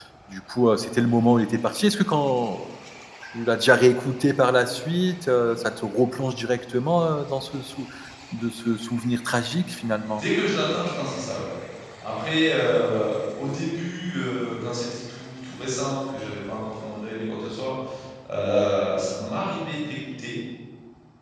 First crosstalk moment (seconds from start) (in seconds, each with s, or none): none